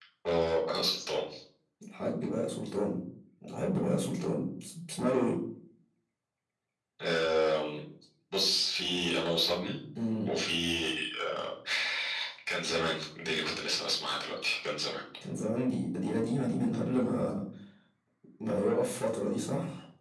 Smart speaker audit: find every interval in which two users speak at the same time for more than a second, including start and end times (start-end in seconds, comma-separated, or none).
none